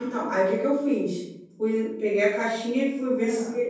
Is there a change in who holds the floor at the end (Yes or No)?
No